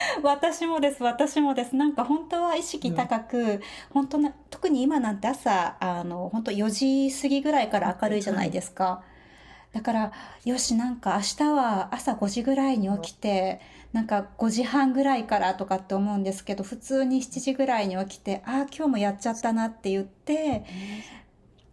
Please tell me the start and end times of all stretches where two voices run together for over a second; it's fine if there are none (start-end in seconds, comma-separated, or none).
none